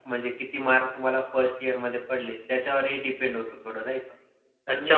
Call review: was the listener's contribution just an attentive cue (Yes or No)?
No